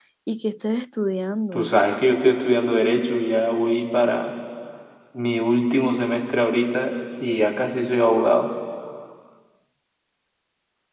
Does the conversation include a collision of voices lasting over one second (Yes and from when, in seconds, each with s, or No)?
No